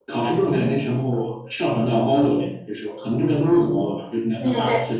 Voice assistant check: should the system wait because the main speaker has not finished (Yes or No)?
Yes